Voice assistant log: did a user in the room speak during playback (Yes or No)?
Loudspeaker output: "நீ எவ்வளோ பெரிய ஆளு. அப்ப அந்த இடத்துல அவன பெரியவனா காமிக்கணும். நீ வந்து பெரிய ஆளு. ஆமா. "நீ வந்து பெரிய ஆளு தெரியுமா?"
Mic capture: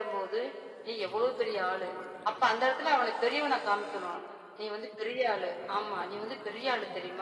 No